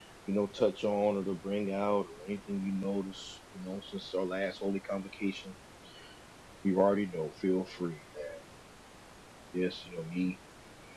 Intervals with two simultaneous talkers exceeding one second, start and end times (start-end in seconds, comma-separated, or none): none